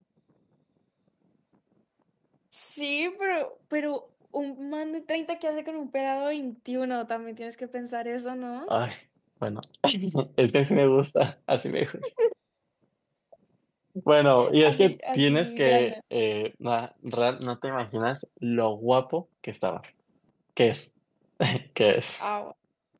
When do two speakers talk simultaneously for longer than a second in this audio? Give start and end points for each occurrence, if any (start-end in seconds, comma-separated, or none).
14.6-15.9